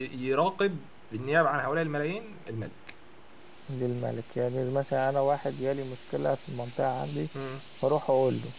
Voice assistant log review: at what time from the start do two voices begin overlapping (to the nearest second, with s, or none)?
none